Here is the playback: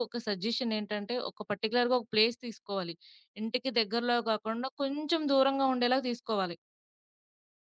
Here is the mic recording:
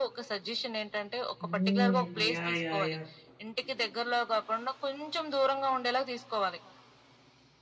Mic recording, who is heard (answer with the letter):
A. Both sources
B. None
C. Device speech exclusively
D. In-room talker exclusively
A